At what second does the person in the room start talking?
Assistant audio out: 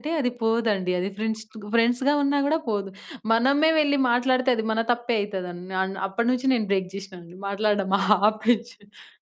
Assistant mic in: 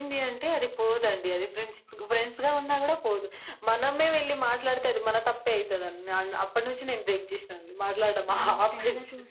8.3 s

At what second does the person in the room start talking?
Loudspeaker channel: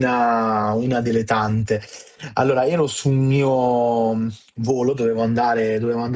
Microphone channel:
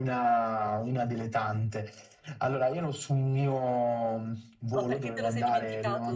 4.7 s

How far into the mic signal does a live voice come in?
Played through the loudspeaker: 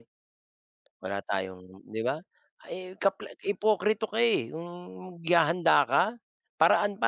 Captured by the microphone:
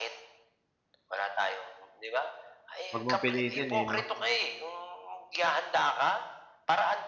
2.9 s

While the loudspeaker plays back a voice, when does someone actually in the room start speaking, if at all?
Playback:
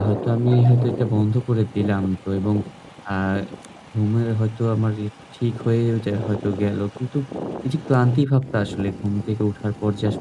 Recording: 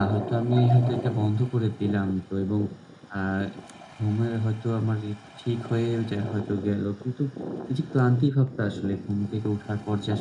none

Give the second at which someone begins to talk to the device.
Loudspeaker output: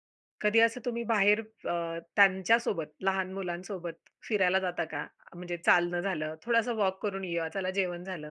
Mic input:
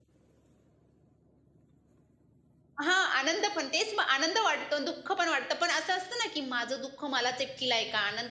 2.8 s

